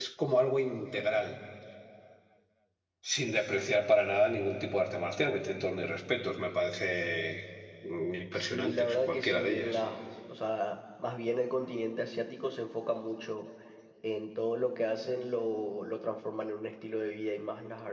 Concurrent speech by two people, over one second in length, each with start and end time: 8.3-9.8

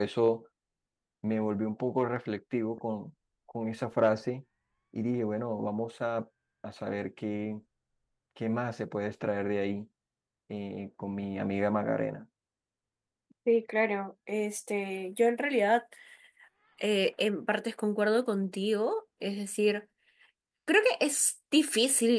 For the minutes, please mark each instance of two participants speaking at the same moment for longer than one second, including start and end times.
none

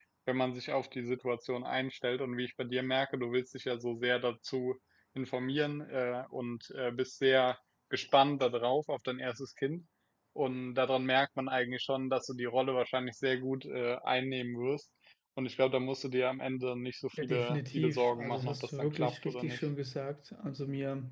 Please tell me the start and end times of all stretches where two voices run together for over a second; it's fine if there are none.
17.1-19.7

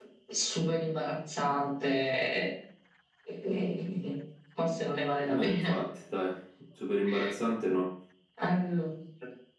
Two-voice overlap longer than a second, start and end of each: none

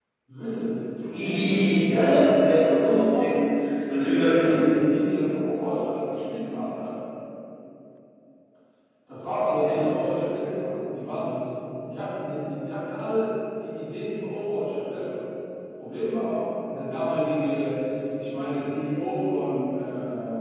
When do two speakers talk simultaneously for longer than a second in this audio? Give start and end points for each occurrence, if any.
1.9-3.4

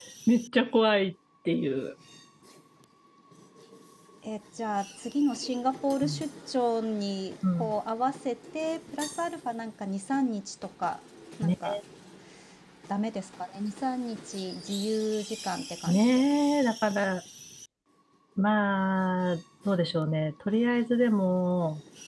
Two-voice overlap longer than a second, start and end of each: none

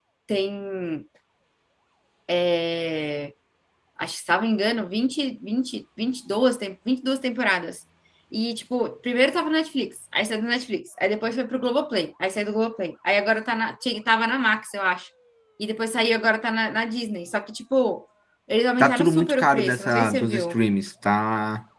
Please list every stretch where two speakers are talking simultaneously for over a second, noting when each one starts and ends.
18.8-20.6

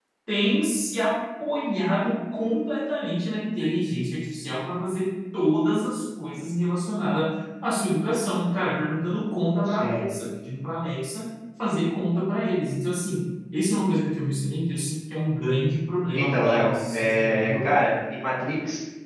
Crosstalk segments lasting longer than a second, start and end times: 16.1-17.7

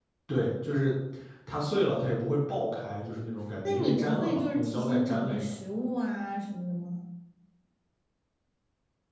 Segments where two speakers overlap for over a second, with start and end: 3.6-5.6

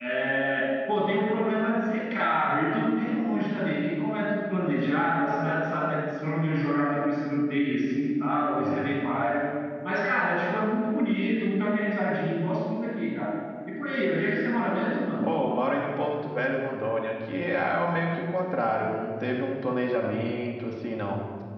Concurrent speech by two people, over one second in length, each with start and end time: none

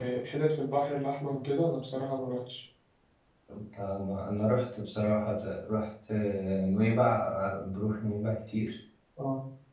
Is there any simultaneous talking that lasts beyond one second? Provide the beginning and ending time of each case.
none

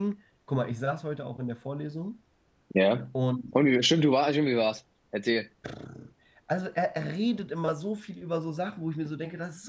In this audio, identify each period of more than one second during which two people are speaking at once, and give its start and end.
none

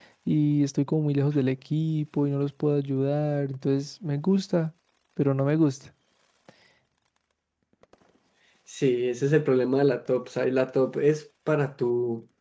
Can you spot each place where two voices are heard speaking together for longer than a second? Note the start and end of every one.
none

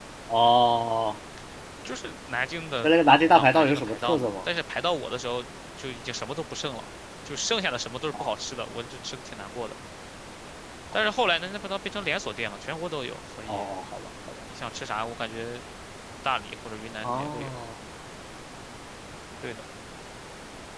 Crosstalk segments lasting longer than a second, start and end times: 2.8-4.3

